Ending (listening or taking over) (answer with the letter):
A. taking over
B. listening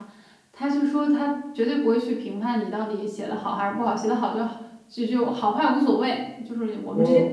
B